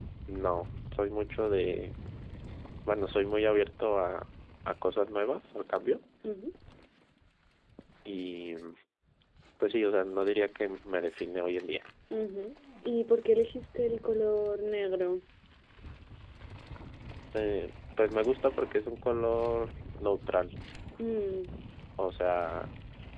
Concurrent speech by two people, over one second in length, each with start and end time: none

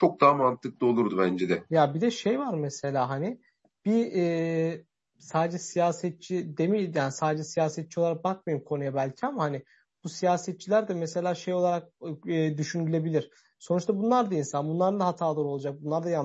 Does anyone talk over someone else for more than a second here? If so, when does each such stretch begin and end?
none

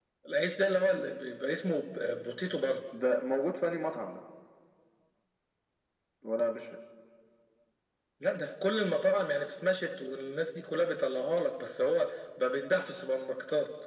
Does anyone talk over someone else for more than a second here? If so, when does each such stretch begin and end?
none

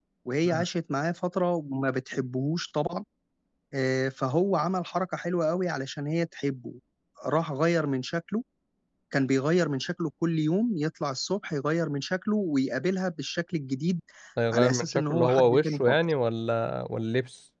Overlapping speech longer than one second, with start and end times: 14.5-16.0

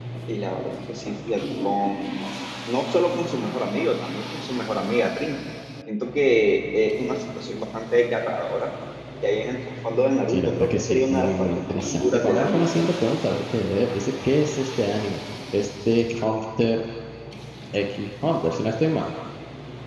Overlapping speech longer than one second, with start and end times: 10.3-12.7

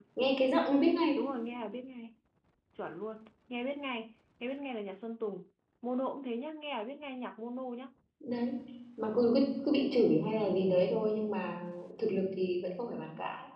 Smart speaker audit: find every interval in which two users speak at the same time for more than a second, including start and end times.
none

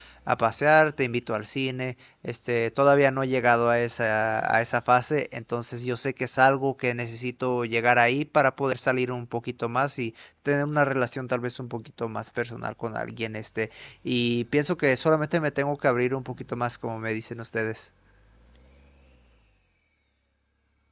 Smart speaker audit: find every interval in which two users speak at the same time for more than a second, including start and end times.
none

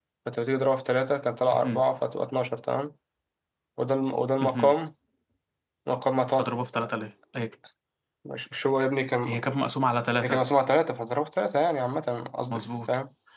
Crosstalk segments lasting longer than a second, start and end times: none

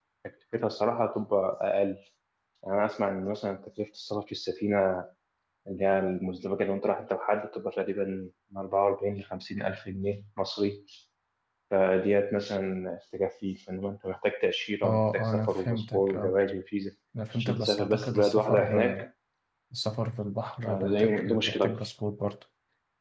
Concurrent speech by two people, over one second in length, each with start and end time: 14.8-16.3, 17.4-19.0, 20.6-21.8

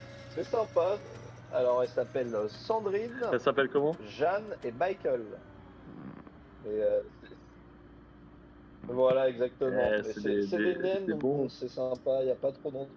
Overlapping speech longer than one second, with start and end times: 9.7-11.5

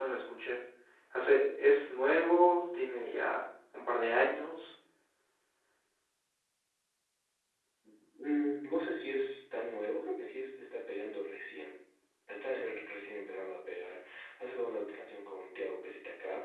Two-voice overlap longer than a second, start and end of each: none

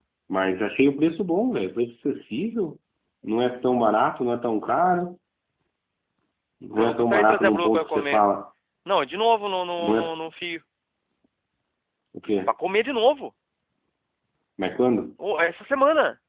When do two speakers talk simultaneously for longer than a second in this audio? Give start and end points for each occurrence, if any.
6.8-8.2

